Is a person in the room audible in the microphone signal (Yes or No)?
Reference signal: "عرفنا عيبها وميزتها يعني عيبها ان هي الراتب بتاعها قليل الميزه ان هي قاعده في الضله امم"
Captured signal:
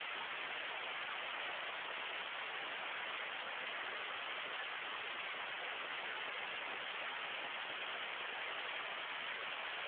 No